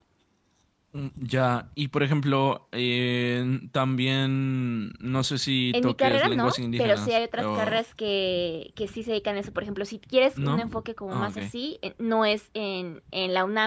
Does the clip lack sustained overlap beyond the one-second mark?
No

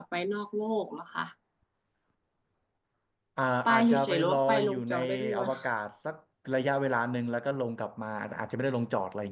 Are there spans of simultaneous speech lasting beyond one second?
Yes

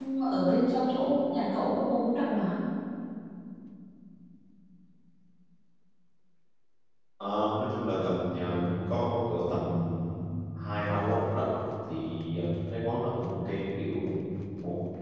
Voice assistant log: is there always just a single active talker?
Yes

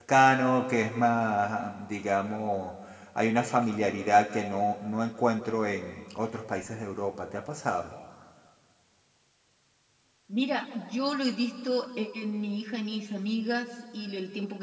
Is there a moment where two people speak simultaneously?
No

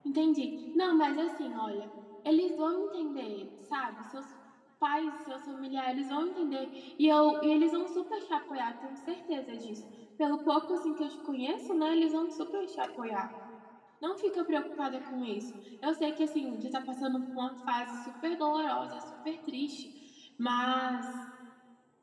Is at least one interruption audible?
No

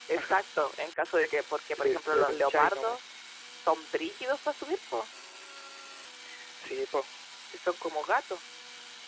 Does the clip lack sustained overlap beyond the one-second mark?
No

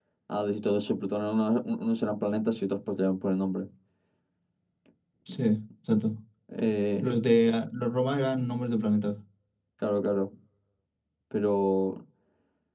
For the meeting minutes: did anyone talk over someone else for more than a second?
No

